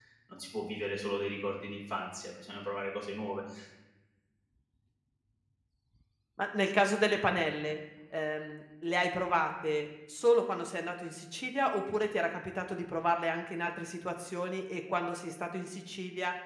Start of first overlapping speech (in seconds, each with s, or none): none